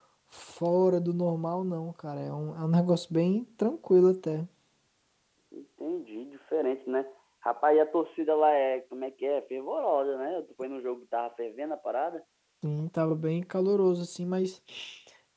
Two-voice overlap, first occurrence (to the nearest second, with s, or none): none